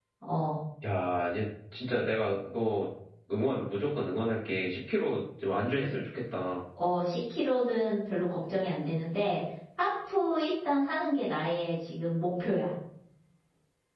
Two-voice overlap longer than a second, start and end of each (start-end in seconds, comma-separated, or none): none